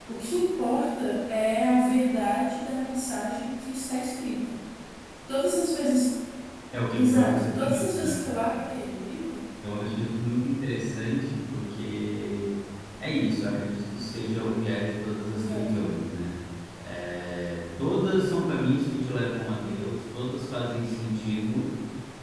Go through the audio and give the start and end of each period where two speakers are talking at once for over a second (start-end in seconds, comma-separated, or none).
7.0-8.2